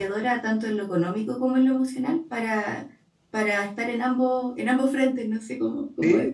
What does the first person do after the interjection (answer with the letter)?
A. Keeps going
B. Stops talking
B